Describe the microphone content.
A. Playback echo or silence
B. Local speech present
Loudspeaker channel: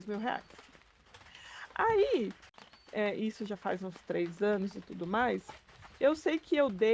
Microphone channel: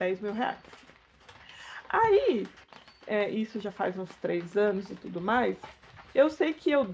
A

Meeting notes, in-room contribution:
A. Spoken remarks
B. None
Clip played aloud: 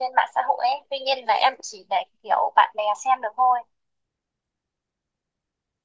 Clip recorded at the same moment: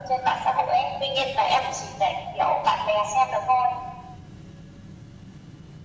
B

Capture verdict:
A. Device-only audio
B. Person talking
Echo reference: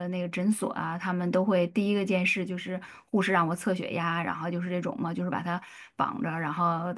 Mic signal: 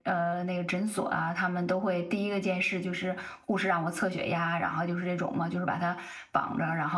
A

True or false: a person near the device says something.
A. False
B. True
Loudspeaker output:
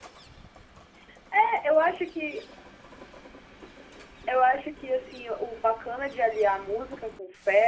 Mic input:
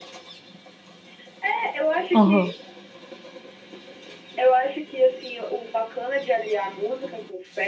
B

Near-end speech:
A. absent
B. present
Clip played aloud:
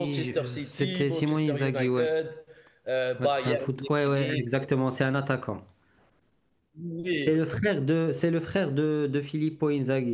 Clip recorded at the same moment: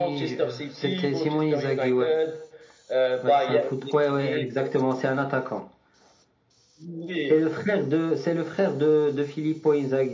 A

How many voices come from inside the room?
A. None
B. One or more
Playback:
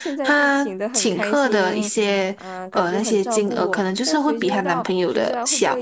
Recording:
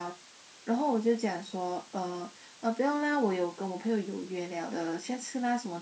B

